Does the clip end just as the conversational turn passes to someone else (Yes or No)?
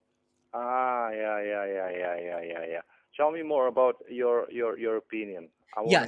Yes